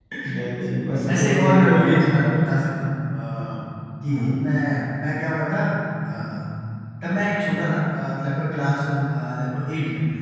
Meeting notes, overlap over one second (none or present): present